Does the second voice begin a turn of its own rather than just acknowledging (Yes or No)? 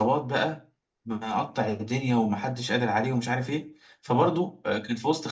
No